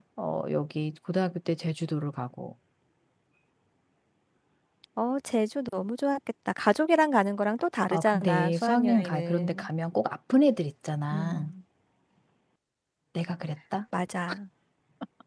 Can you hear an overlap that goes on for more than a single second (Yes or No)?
Yes